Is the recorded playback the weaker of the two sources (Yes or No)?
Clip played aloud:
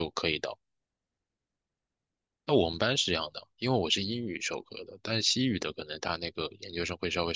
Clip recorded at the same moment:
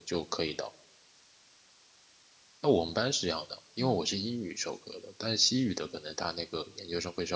No